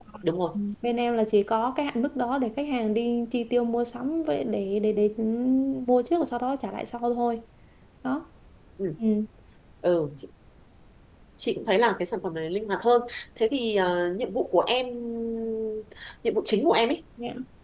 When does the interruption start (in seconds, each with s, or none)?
none